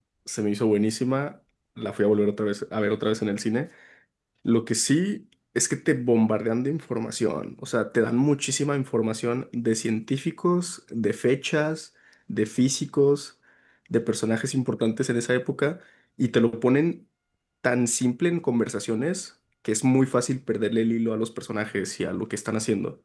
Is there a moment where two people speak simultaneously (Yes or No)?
No